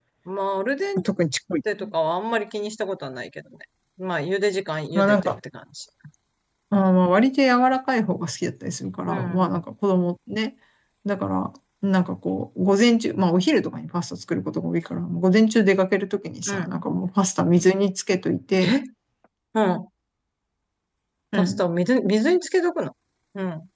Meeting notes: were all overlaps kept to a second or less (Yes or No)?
Yes